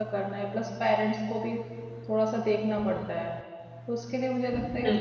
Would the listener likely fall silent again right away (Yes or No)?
Yes